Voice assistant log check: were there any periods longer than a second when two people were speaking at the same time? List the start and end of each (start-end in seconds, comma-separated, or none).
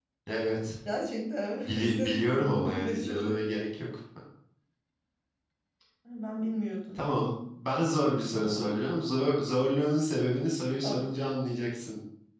1.6-3.4